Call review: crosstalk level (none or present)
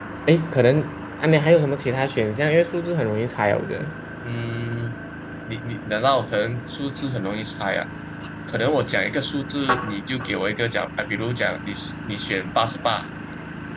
none